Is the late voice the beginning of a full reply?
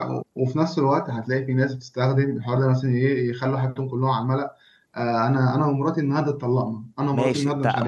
Yes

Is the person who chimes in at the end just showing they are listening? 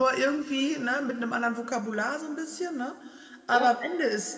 Yes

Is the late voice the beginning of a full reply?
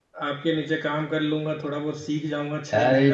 Yes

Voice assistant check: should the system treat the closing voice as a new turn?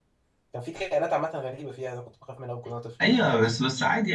Yes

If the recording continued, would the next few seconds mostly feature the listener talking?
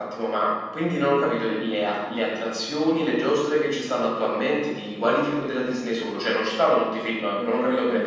Yes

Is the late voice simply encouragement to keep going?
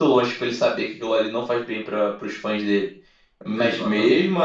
Yes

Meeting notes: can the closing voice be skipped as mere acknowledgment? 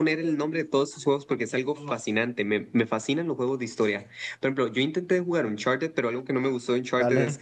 Yes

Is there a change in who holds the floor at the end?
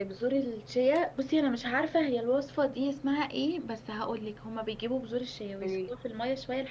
No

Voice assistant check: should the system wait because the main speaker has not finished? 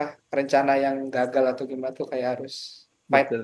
No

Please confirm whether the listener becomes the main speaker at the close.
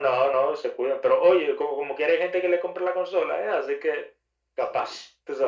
Yes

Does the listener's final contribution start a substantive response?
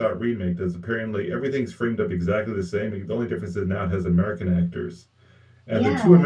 No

